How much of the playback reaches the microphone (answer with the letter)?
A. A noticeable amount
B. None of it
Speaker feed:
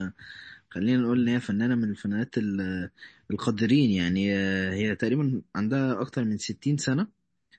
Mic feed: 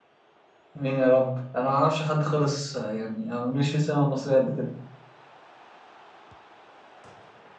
B